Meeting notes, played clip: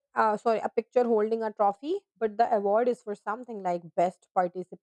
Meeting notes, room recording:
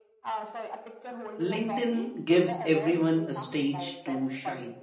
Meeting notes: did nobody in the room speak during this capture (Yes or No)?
No